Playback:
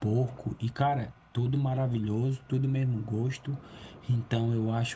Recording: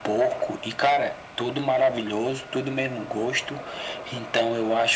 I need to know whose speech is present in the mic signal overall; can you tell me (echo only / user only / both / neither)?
echo only